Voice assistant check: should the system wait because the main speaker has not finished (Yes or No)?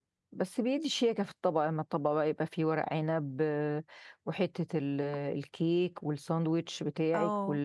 No